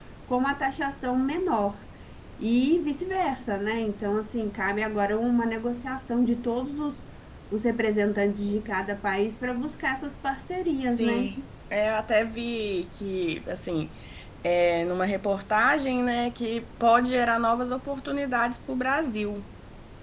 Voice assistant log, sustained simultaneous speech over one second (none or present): none